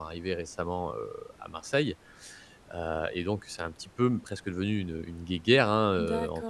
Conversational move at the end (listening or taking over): taking over